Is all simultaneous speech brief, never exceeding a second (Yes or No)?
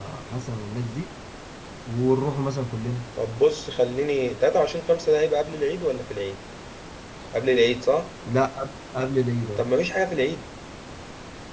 Yes